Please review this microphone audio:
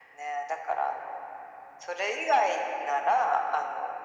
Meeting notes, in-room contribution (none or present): none